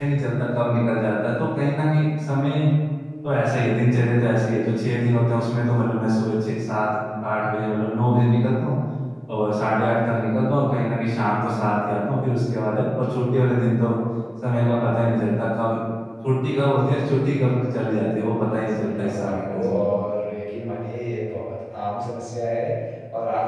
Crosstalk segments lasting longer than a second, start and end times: 18.4-19.8

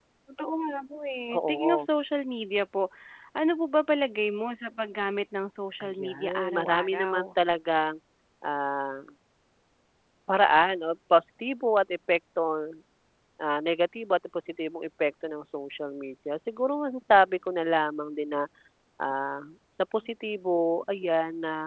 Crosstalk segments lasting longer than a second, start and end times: 5.8-7.2

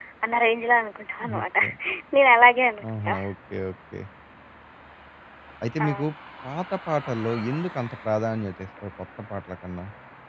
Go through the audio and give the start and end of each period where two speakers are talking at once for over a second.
none

